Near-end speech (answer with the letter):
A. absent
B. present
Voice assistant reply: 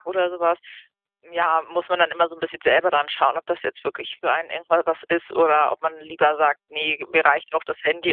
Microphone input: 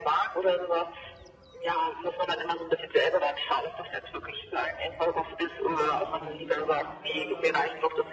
B